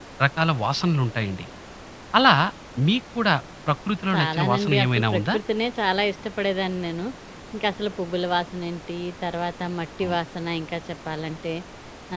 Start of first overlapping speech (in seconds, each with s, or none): 4.1 s